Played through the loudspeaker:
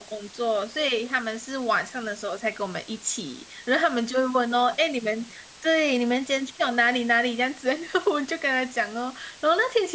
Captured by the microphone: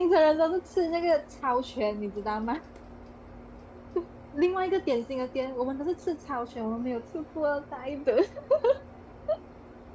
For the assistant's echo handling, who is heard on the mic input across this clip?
user only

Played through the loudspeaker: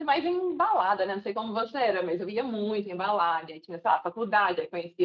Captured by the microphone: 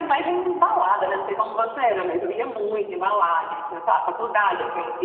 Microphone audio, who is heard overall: echo only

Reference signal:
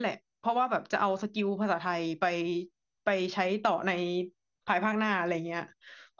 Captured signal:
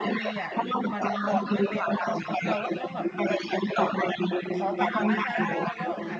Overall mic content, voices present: both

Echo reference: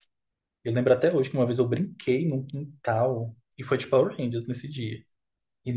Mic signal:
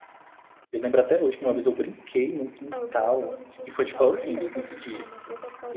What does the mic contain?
both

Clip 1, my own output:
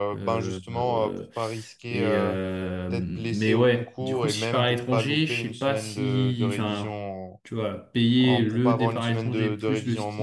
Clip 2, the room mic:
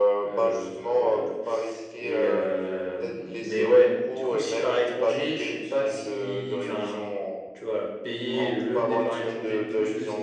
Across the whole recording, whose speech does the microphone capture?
echo only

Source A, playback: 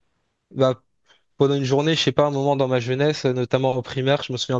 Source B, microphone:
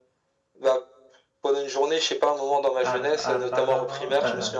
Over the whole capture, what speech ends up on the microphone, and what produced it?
both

